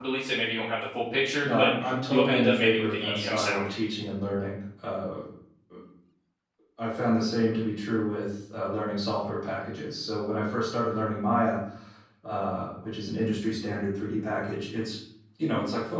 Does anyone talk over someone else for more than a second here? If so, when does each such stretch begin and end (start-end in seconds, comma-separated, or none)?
2.1-3.7